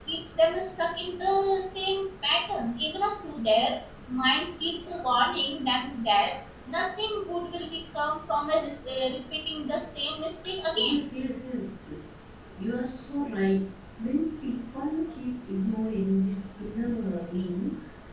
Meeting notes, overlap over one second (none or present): none